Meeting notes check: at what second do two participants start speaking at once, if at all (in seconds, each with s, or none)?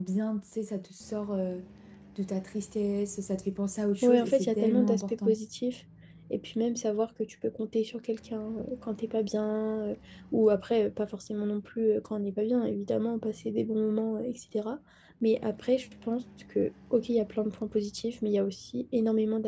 4.0 s